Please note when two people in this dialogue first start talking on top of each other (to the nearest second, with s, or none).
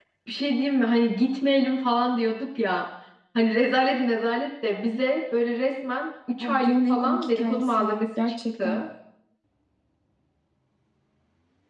6 s